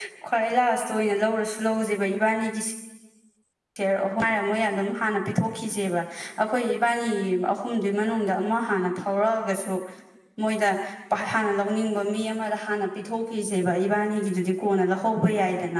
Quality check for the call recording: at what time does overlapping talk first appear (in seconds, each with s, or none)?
none